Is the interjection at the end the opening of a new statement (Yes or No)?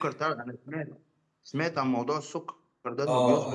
Yes